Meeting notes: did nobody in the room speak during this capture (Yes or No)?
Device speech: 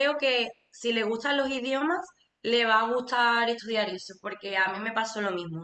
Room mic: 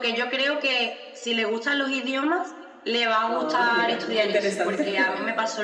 No